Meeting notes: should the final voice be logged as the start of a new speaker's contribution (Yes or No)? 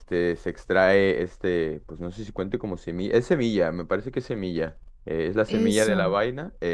No